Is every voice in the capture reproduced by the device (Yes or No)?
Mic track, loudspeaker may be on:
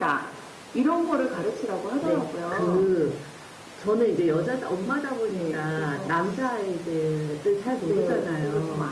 No